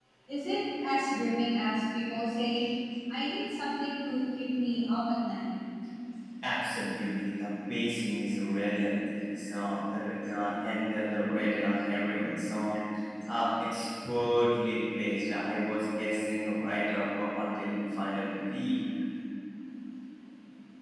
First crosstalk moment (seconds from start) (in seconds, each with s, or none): none